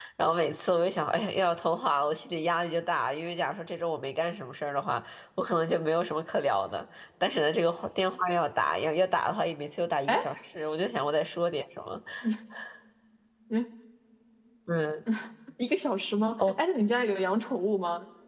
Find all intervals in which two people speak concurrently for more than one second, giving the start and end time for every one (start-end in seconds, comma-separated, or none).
none